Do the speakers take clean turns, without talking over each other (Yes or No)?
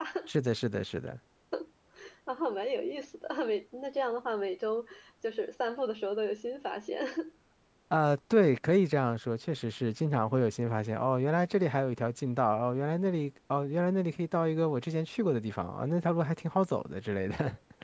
Yes